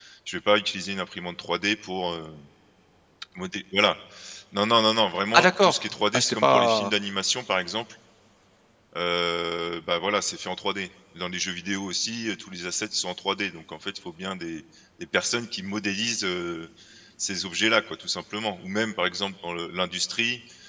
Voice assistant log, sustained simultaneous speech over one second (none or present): present